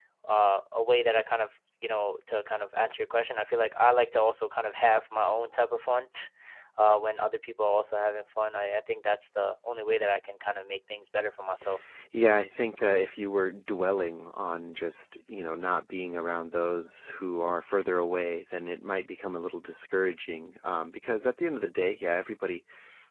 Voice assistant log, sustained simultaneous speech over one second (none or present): none